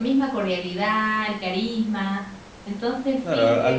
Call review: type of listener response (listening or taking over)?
taking over